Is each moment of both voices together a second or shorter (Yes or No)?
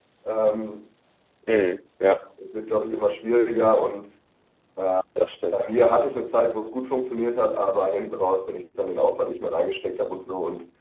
Yes